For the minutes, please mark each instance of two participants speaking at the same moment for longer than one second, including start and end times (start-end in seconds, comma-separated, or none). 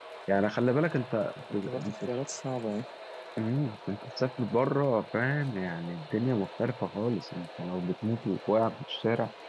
none